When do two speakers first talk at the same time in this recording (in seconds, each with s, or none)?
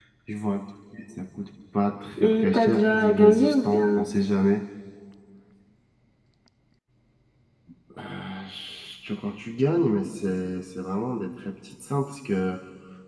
2.2 s